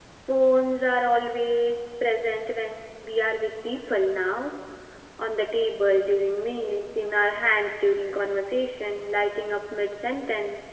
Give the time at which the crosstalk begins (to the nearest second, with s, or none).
none